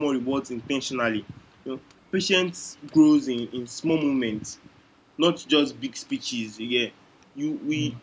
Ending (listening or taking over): listening